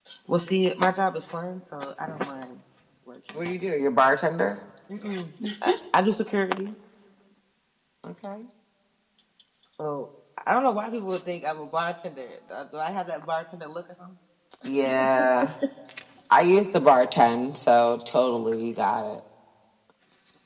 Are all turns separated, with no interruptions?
Yes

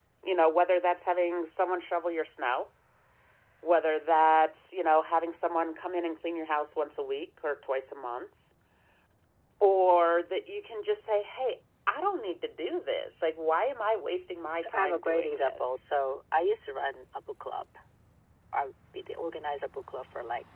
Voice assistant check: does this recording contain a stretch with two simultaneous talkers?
Yes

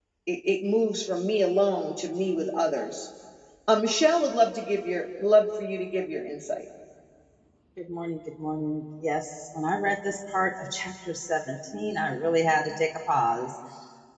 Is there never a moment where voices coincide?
Yes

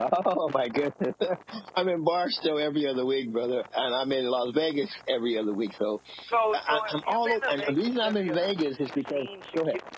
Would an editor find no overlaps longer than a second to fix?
No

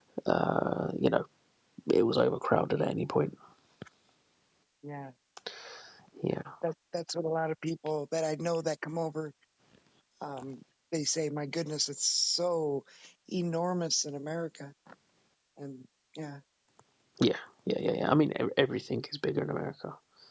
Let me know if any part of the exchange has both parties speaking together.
No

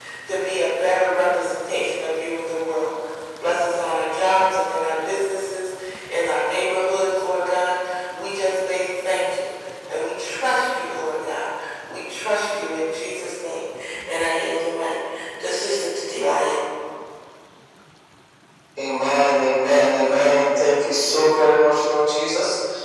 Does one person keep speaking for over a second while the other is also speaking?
No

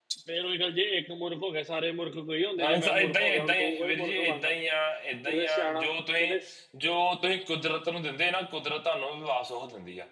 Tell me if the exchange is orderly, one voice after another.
No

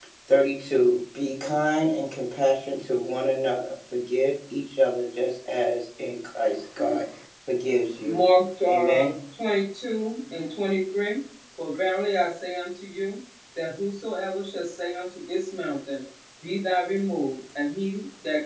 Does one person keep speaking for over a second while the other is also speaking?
No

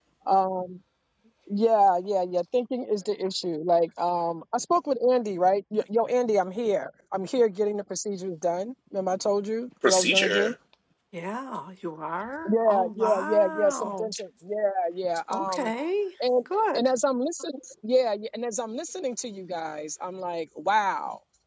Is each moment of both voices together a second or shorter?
No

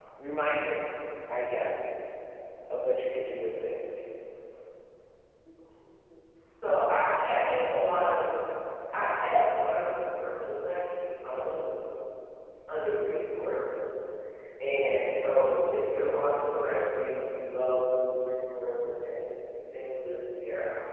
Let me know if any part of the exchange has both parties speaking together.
No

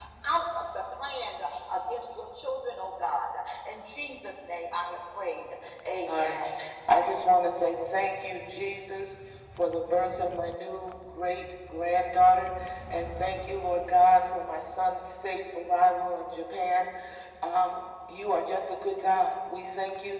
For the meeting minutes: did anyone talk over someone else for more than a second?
No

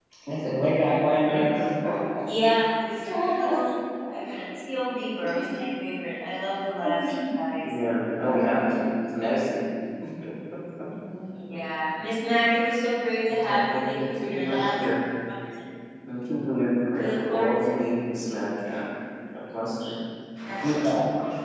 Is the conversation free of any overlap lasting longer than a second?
No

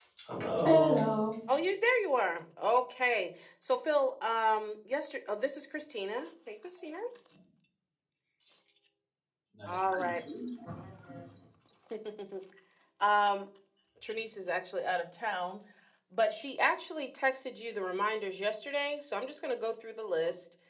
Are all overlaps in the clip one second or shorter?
Yes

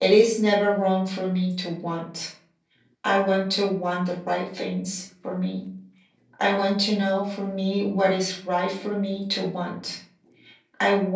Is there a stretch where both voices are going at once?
No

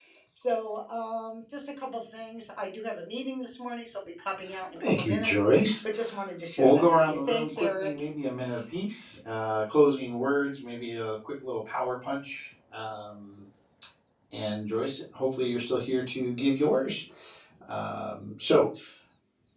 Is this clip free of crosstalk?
No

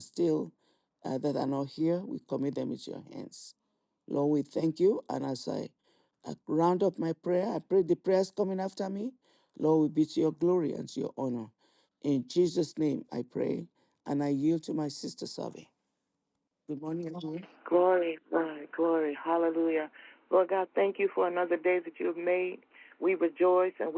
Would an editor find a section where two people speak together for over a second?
No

